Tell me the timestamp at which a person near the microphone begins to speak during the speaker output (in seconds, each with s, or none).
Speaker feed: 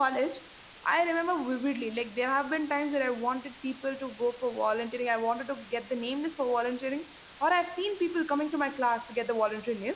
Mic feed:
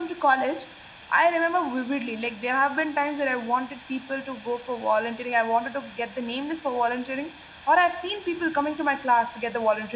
none